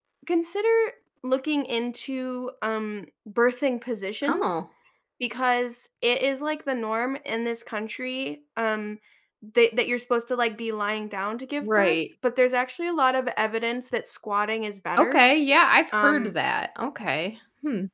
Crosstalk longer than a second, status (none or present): none